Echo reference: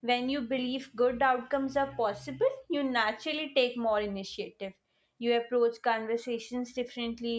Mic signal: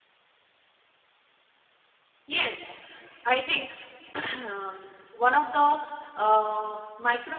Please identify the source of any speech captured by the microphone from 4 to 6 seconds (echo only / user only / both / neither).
user only